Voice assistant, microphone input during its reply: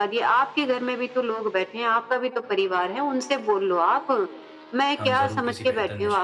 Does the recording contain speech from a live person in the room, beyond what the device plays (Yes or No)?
Yes